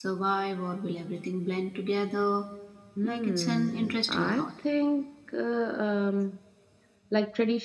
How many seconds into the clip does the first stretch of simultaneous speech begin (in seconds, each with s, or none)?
3.0 s